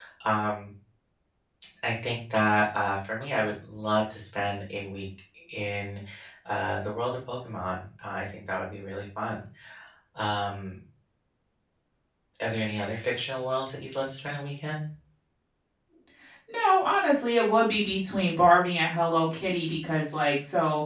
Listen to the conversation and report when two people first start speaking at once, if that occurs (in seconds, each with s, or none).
none